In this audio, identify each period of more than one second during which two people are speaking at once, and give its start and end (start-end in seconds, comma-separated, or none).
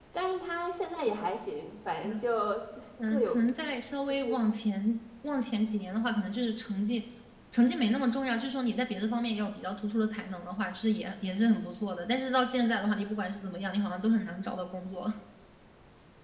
none